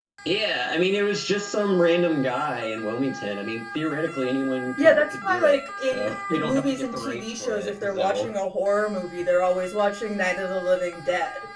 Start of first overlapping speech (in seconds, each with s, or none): 4.8 s